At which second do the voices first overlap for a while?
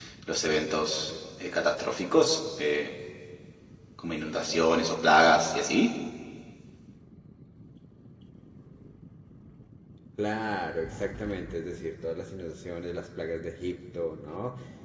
none

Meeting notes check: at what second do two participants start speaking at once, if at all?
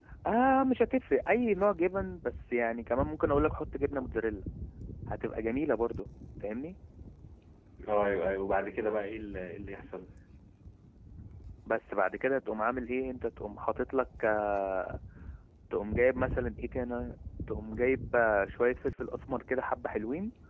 none

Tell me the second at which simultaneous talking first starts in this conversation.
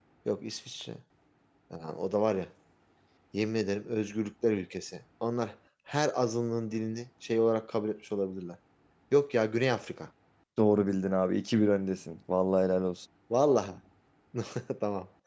none

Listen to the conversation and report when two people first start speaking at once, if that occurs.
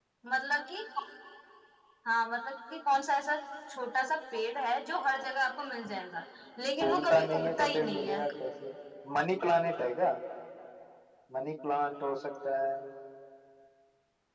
6.8 s

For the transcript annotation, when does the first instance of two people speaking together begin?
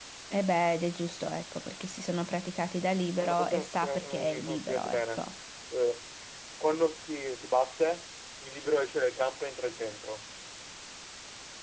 3.2 s

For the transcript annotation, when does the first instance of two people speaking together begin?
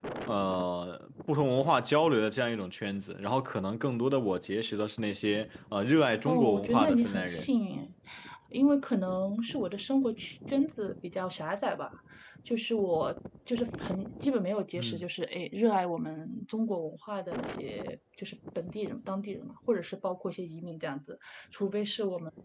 6.3 s

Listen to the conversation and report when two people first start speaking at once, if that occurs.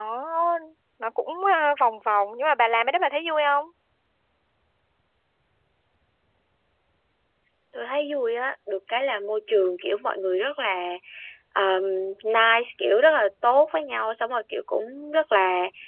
none

